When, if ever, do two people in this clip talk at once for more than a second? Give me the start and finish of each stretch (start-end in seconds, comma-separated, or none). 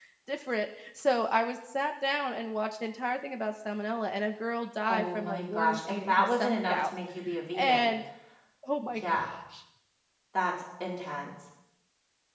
4.9-6.9